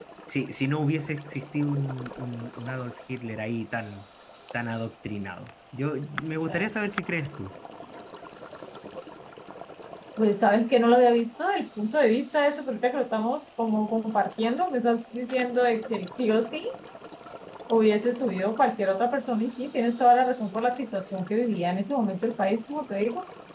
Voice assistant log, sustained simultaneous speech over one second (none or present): none